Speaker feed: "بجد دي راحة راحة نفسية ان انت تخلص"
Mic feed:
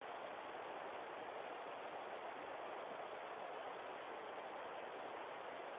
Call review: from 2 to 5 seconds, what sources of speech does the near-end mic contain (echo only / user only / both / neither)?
neither